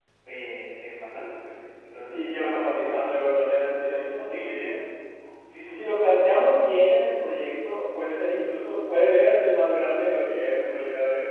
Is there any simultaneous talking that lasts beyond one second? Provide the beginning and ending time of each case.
2.1-3.3

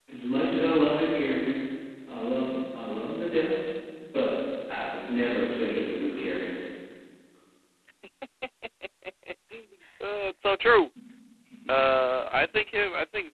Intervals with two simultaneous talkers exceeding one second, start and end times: none

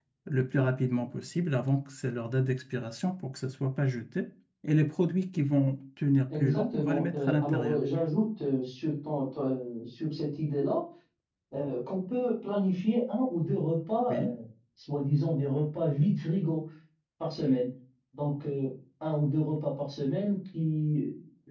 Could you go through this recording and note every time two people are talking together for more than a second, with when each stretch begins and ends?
6.4-7.8

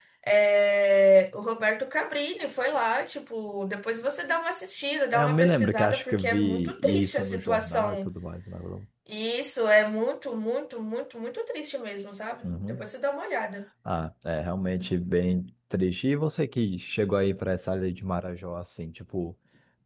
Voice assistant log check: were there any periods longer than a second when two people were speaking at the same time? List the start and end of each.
5.1-8.1

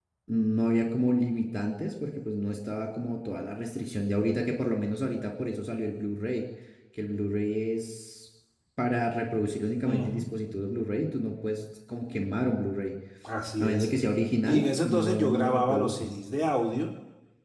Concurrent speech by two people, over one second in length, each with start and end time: 14.5-16.1

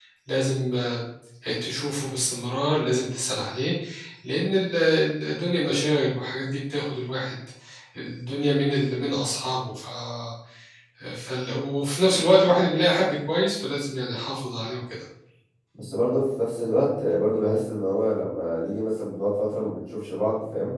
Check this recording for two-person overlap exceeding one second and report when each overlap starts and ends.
none

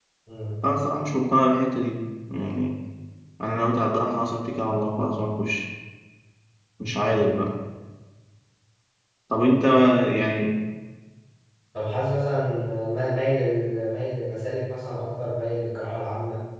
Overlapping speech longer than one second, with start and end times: none

